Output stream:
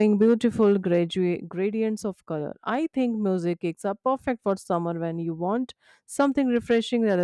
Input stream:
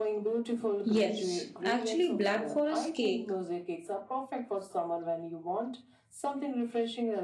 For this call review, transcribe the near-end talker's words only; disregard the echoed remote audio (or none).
Yes, actually, Black Forest cake